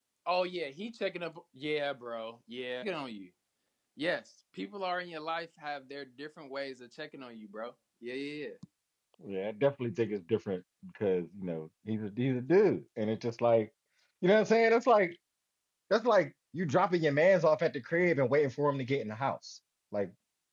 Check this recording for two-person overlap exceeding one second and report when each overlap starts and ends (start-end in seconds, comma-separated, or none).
none